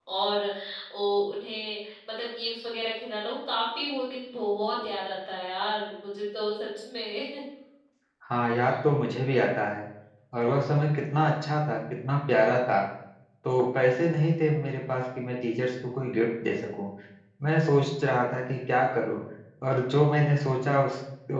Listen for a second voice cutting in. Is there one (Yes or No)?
No